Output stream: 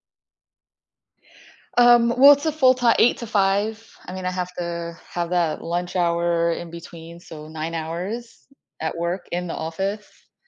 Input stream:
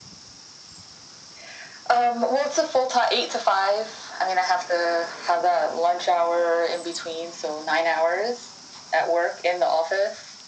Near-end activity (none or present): none